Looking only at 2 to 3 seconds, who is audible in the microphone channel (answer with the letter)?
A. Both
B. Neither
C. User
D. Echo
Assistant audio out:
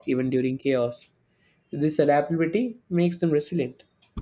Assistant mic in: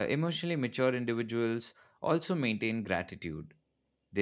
C